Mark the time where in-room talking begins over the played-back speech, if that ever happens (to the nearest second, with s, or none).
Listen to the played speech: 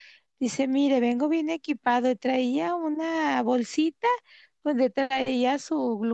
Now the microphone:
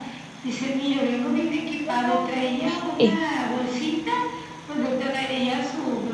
2 s